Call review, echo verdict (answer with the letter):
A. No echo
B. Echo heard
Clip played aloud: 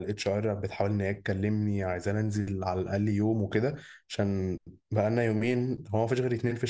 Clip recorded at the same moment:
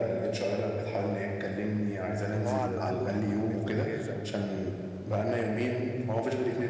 B